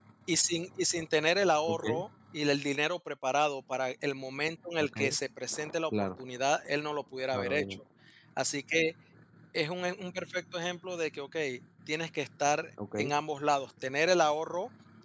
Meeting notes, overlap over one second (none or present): none